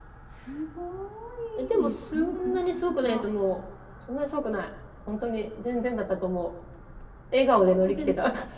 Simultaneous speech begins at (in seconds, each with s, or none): 1.8 s